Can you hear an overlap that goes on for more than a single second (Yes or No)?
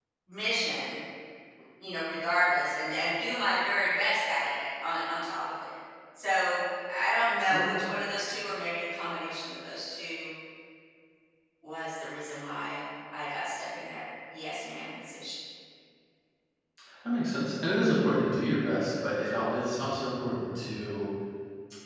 No